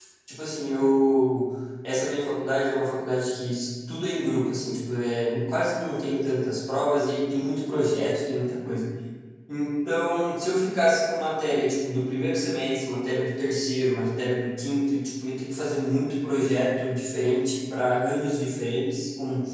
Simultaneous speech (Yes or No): No